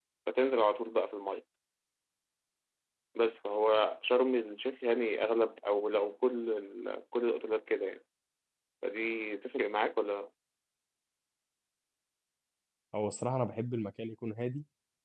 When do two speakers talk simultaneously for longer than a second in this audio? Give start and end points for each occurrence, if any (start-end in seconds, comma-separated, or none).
none